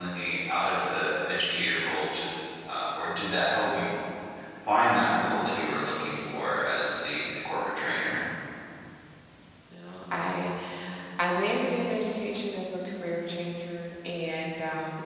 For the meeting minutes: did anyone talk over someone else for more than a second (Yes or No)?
No